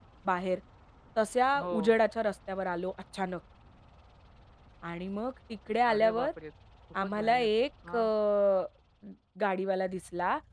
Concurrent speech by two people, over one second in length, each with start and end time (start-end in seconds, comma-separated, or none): none